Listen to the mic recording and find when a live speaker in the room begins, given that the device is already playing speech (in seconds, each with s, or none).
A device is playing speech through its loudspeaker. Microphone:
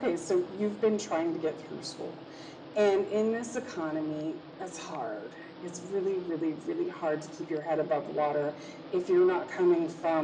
none